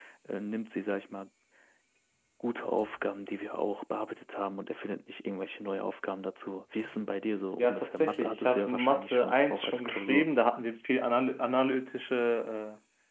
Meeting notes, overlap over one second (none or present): present